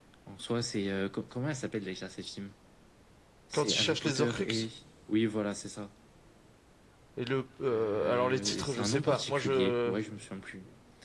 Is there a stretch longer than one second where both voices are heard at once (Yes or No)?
Yes